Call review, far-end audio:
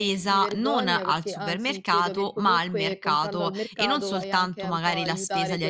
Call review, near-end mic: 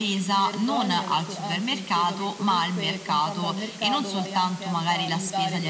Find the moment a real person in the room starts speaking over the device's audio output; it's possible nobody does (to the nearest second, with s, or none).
none